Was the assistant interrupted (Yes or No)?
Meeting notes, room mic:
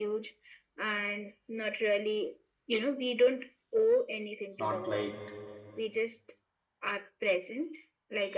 Yes